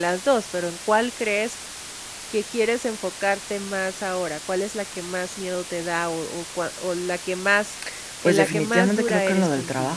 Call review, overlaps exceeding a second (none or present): present